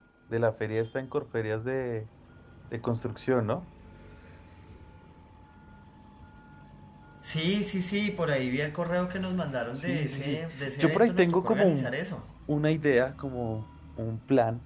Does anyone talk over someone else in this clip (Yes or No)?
Yes